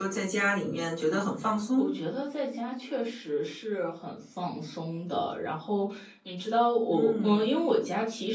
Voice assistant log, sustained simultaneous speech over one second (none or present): none